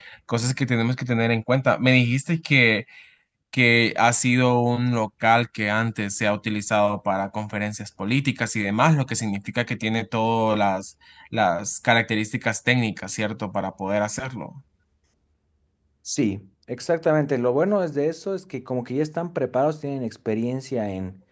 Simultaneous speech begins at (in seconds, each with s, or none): none